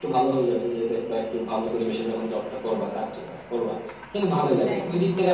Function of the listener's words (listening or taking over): listening